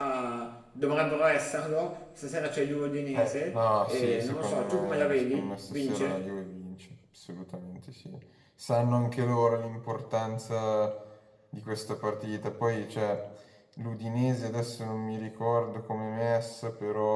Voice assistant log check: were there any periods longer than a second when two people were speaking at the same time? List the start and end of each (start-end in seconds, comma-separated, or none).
3.1-6.3